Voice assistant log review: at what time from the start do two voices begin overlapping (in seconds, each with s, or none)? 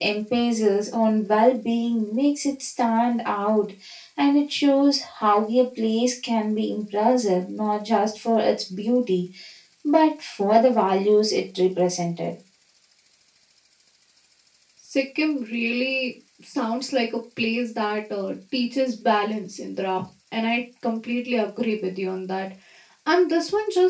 none